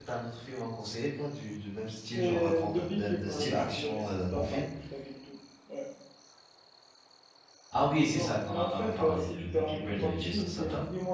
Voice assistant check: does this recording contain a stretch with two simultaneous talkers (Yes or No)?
Yes